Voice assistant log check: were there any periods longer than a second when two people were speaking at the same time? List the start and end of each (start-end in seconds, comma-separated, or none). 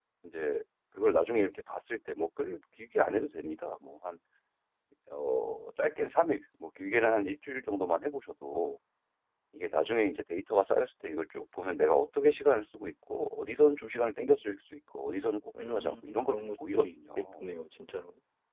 15.7-17.3